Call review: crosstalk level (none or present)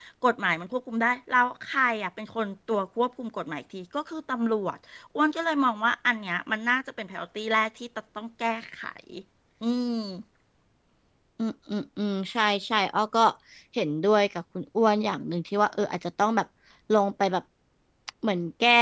none